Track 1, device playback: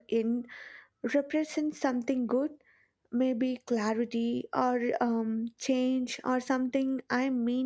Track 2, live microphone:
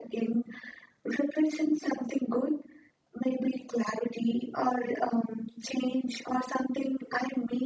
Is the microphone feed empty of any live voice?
Yes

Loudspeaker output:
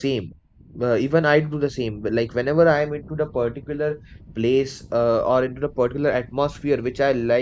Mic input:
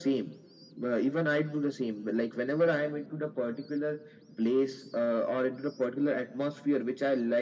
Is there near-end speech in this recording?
No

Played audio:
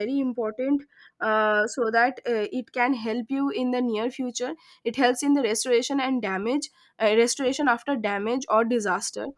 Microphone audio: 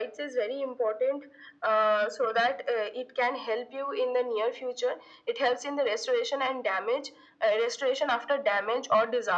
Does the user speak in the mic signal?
No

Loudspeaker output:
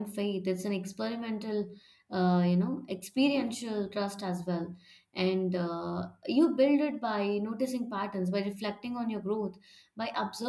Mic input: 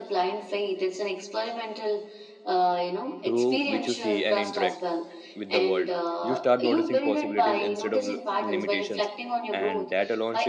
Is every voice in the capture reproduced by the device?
No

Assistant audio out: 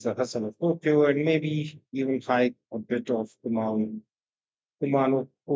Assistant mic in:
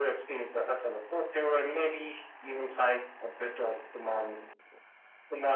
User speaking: No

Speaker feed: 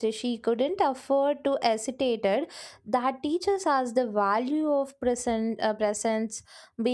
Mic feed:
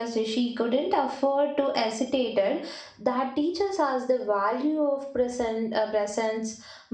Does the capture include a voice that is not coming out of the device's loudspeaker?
No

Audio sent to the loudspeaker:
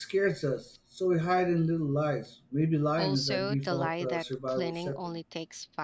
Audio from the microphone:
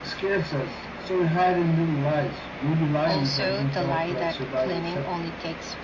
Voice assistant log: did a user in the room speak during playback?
No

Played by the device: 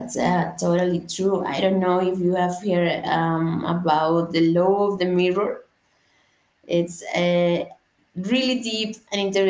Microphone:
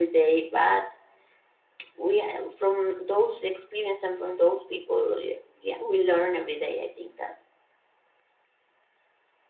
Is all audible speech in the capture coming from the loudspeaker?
No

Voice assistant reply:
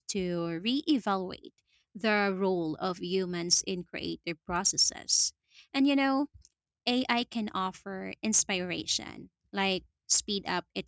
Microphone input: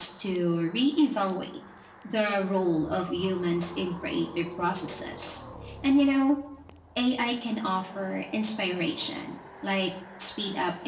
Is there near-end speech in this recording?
No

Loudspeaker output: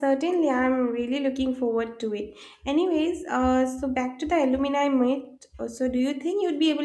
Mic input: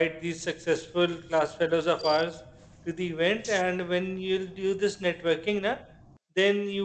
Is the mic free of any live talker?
No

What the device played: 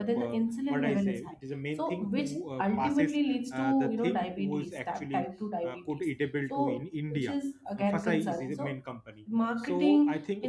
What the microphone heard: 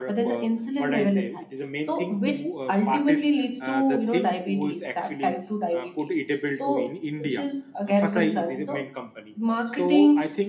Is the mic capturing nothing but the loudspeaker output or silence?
Yes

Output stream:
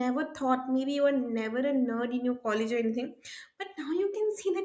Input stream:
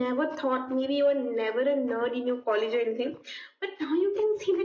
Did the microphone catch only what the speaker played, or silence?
Yes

